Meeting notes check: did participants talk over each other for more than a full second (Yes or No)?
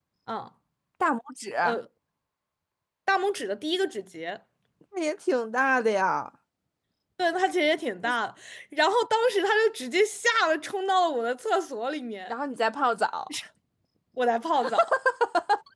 No